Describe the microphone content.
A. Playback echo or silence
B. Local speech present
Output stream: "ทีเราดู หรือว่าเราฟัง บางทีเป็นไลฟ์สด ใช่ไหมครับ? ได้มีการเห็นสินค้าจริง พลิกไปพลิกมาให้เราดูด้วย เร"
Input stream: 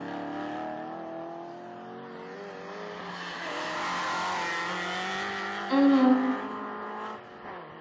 B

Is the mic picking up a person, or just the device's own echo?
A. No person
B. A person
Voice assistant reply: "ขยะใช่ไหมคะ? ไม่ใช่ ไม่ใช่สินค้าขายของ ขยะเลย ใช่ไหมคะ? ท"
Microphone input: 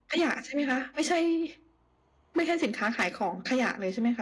A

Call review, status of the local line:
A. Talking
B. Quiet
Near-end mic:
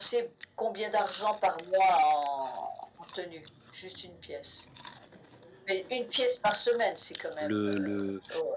A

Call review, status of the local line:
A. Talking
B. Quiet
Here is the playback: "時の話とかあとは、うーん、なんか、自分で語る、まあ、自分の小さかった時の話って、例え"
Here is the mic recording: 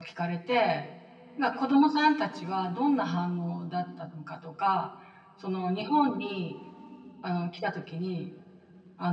A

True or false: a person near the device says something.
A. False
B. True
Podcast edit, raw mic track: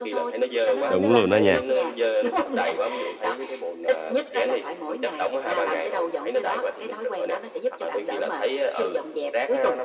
B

